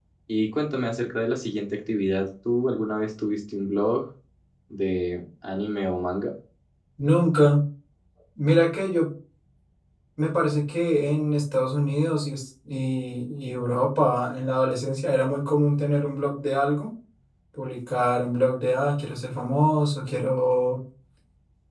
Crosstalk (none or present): none